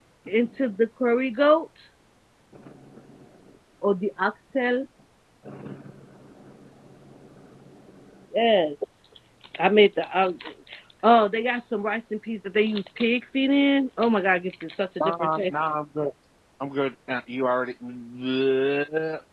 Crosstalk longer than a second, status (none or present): none